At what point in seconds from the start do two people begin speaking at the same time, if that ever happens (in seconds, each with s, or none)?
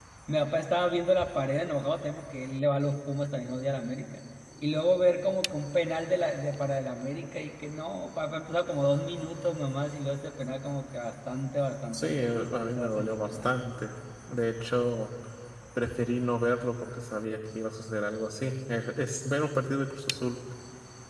11.9 s